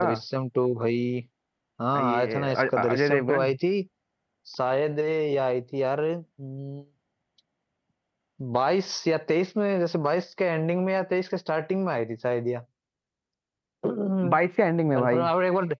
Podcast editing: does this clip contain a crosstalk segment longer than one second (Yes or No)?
Yes